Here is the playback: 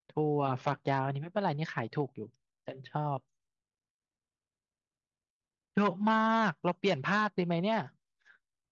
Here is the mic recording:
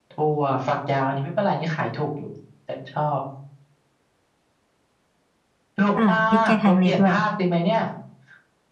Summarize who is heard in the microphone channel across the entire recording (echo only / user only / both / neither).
both